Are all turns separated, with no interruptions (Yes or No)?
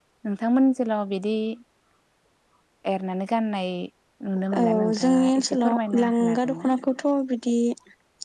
No